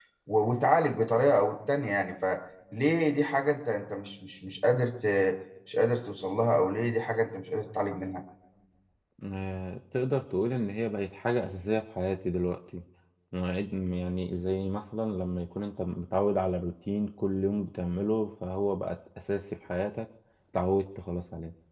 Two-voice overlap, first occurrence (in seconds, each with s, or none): none